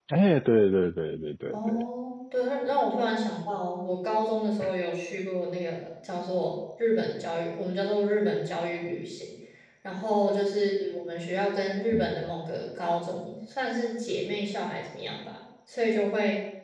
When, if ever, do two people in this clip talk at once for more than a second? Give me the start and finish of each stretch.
none

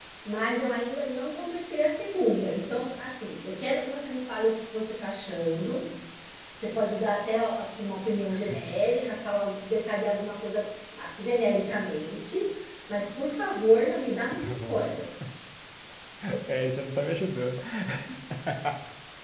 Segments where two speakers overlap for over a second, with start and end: none

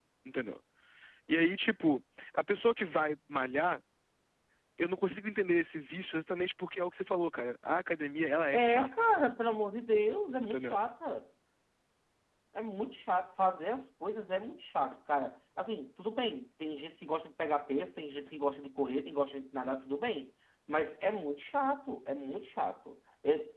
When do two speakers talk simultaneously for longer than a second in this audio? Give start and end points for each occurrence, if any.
none

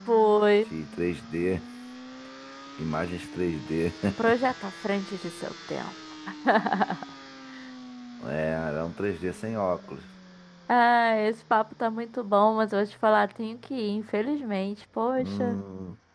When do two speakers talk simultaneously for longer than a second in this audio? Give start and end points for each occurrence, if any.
none

